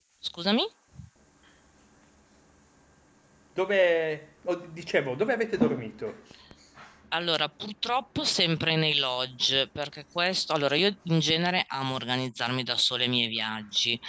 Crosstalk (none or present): none